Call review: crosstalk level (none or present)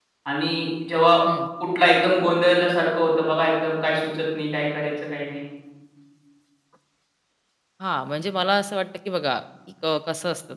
none